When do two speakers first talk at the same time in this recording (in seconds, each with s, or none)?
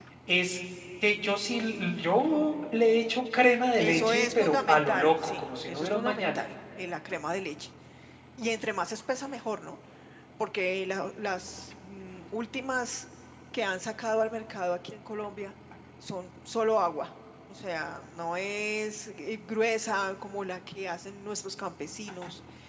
3.8 s